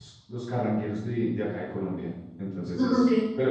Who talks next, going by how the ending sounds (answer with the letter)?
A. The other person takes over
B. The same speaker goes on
B